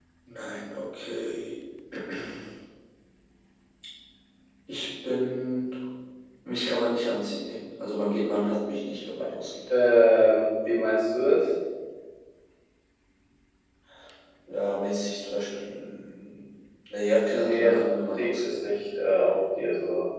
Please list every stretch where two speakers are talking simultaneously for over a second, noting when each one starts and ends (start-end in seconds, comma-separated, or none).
17.3-18.6